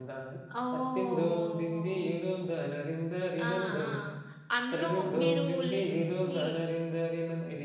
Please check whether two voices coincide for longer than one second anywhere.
Yes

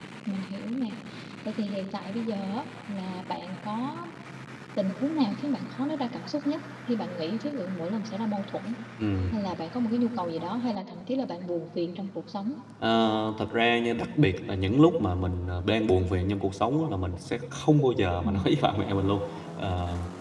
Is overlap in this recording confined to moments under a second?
Yes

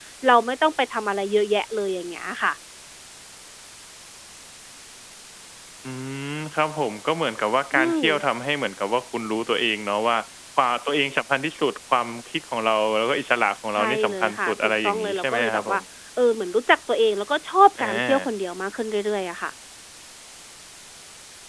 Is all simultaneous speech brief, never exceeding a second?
No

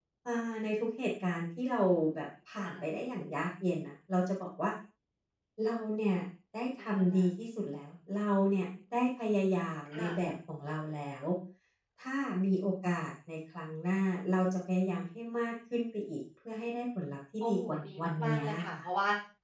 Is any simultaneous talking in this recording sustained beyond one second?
Yes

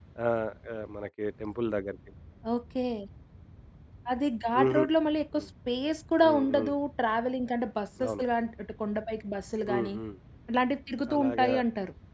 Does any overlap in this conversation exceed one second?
No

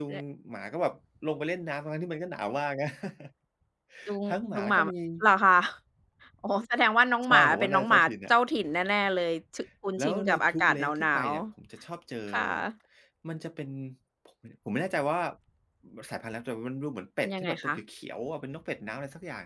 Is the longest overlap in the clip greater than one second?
Yes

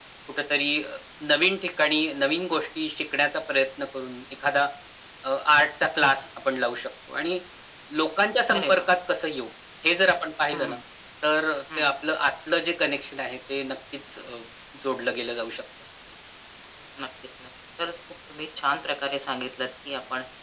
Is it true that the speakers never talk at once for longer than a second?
Yes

